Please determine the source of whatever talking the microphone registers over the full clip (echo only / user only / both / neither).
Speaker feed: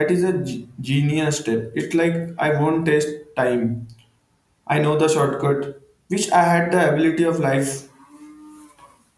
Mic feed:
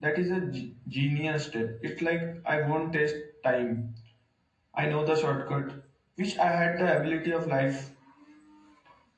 echo only